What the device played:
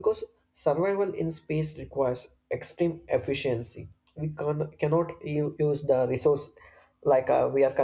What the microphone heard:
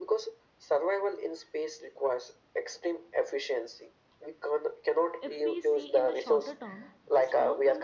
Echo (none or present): present